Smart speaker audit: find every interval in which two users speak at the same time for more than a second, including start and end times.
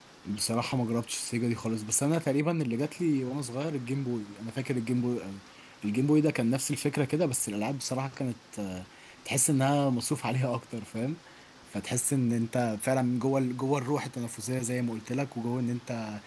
none

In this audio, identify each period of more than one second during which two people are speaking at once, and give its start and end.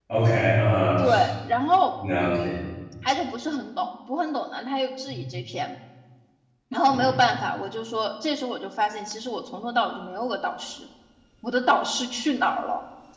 none

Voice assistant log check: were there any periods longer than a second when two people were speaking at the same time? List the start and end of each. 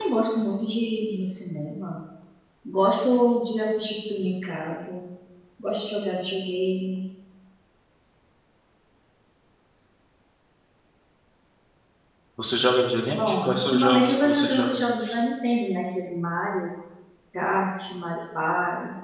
13.1-14.8

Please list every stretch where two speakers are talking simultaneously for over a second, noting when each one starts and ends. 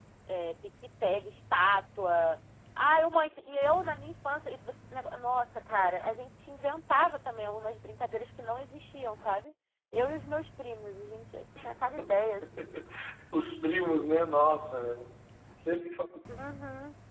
none

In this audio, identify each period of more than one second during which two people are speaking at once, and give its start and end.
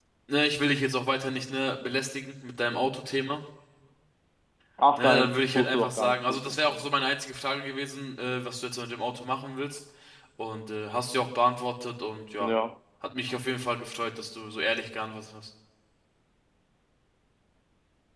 5.0-6.8

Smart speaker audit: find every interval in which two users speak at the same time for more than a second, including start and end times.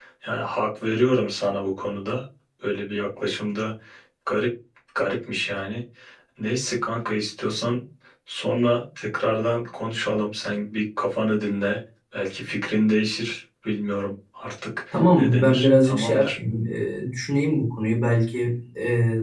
14.9-16.4

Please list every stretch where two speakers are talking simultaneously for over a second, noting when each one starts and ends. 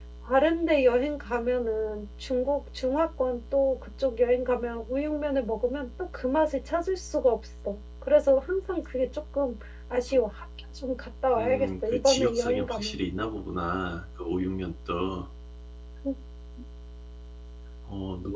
11.3-13.0

